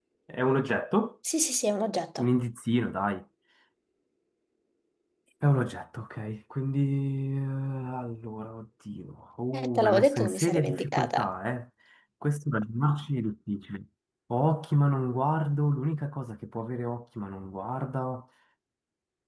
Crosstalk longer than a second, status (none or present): present